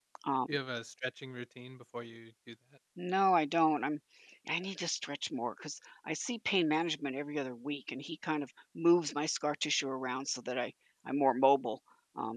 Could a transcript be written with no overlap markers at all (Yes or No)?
Yes